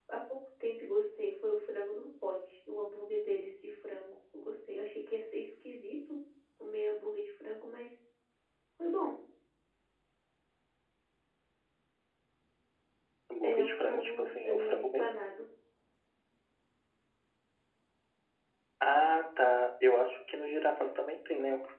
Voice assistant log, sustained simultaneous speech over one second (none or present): present